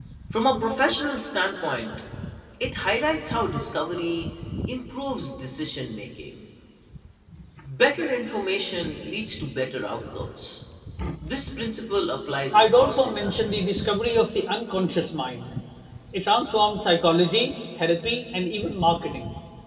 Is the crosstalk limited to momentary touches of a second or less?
No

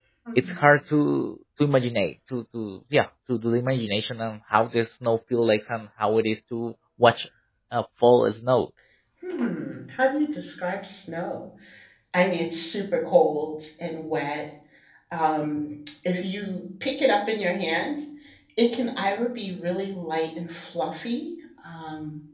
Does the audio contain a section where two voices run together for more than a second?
No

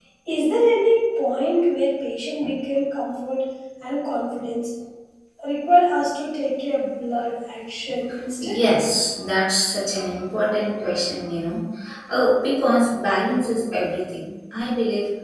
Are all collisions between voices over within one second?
Yes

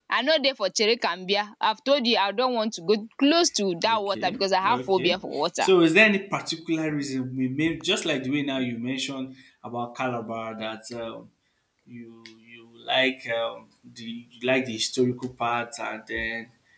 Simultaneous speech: Yes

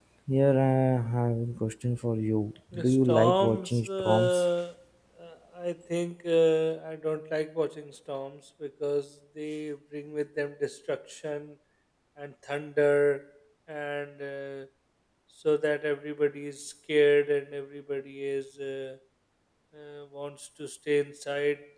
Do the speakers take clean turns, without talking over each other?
No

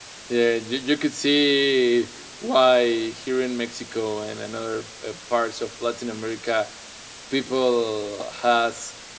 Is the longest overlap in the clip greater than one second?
No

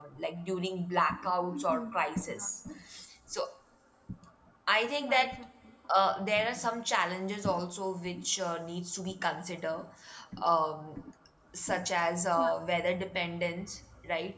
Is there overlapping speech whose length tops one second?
No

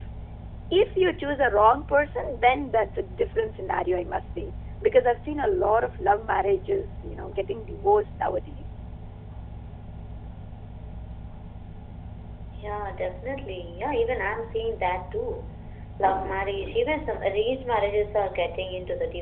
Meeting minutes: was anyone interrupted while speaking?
No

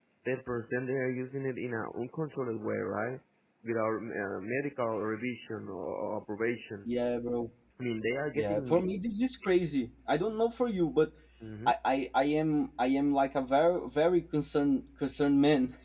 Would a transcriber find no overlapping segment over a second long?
Yes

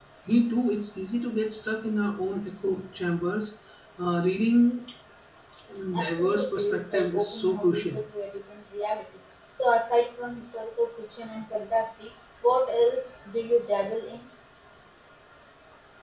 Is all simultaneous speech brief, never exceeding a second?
No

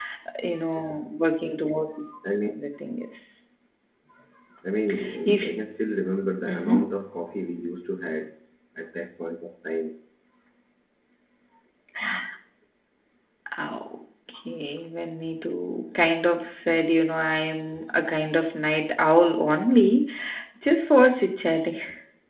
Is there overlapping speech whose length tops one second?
No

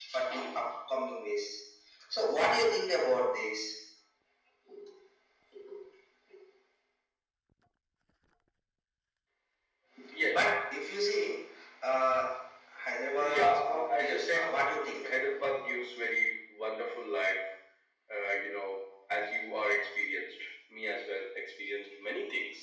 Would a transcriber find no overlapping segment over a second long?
No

